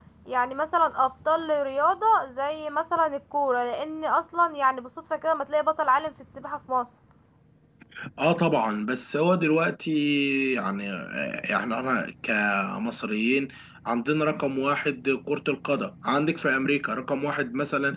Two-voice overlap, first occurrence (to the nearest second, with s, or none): none